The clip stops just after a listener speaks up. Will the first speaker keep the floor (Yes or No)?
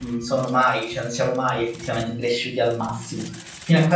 Yes